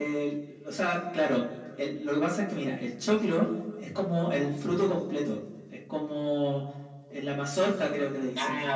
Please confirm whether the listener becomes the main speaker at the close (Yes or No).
Yes